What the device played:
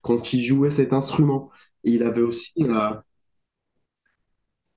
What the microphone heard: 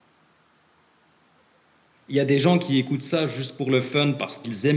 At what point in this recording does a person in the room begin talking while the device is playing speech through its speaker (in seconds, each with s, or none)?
2.1 s